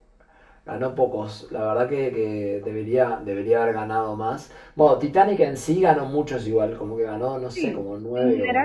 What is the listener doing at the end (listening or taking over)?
taking over